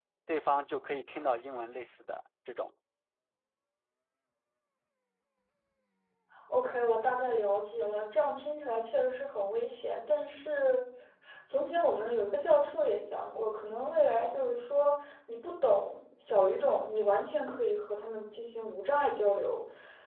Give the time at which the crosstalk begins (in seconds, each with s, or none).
none